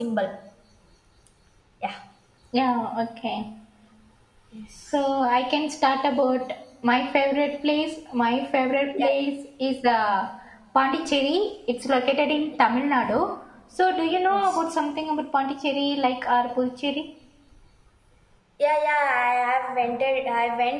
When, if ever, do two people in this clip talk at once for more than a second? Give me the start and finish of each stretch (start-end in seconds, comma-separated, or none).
none